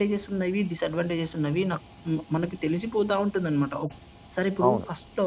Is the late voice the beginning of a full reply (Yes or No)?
No